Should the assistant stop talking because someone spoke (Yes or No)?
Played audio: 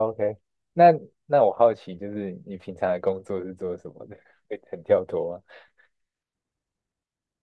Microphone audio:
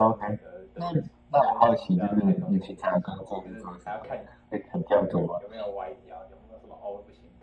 Yes